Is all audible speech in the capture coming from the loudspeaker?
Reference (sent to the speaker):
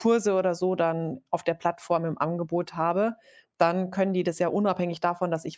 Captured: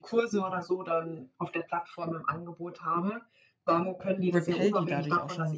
No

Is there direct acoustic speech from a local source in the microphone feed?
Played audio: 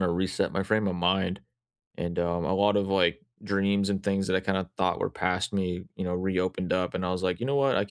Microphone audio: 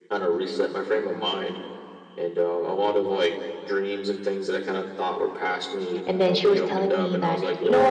Yes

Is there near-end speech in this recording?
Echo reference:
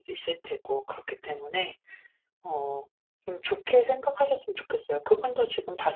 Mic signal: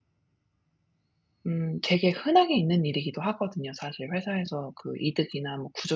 Yes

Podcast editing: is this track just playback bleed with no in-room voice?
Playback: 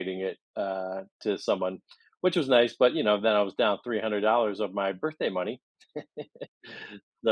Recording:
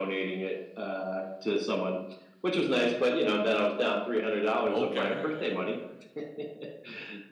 No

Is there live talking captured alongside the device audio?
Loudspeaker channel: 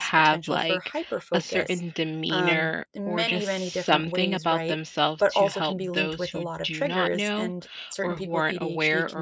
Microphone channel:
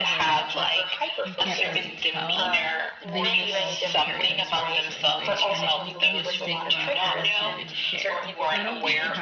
Yes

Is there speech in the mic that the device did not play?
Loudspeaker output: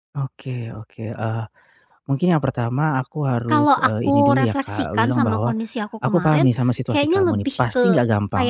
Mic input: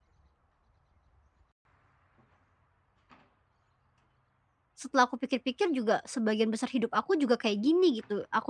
Yes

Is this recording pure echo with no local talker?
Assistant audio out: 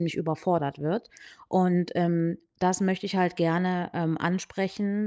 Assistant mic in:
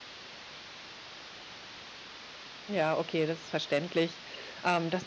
No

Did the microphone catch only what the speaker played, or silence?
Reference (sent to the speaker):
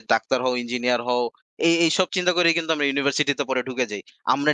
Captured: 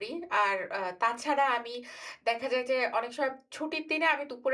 No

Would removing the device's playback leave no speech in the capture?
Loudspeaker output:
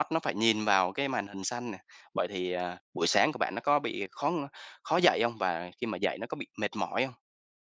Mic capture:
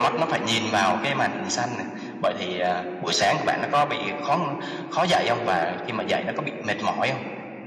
Yes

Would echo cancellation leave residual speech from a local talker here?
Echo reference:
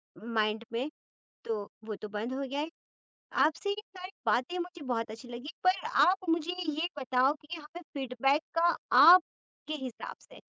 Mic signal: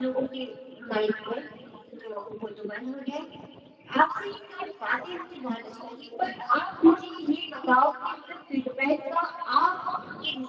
No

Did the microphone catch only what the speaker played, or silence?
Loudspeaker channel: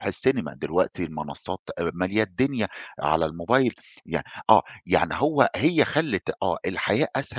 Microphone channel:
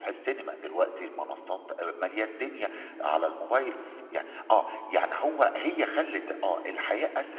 Yes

